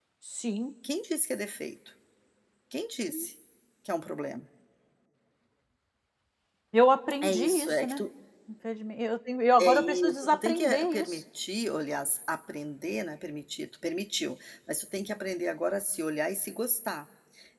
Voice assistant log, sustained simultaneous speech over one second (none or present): present